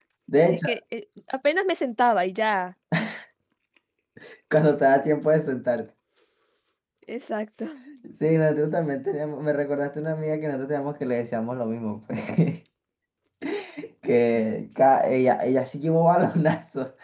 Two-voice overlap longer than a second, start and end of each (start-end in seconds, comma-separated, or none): none